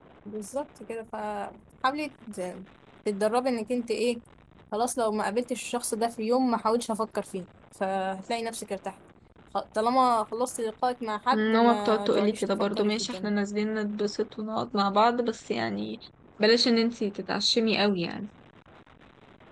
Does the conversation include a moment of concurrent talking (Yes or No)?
Yes